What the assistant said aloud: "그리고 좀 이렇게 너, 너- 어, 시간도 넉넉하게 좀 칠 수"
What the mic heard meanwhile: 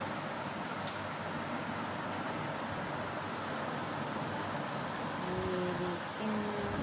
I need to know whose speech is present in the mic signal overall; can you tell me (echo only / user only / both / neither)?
neither